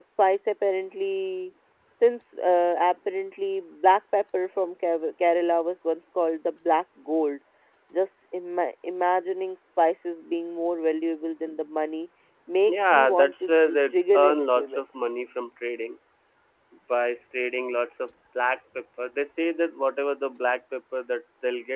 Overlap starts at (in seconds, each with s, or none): 12.7 s